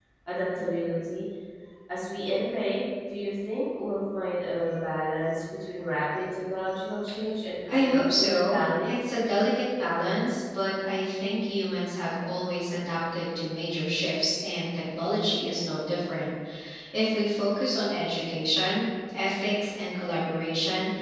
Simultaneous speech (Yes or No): Yes